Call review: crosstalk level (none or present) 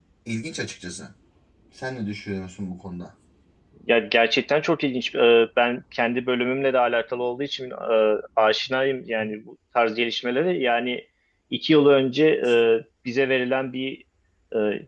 none